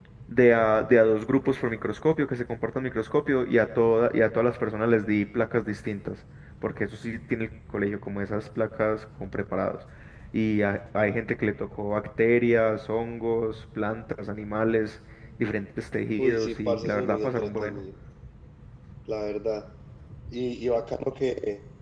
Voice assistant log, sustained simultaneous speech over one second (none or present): present